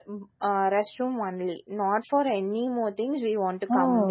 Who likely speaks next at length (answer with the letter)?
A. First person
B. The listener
B